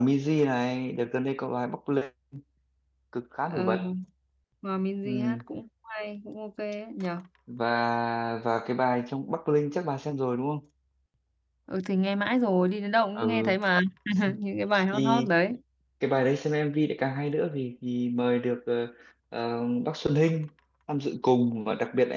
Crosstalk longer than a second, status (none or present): none